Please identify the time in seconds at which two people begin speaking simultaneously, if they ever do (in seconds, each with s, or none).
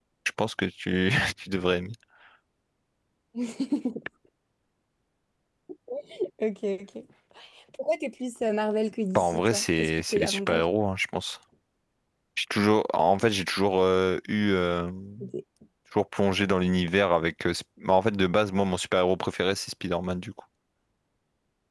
9.2 s